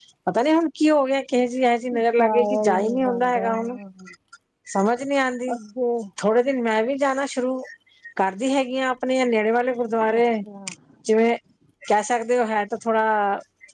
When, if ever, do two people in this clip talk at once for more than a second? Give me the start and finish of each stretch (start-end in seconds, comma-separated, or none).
1.9-3.5